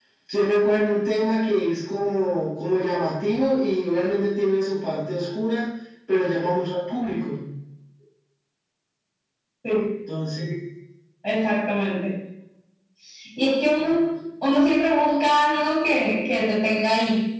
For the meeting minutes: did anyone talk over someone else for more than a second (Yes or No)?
No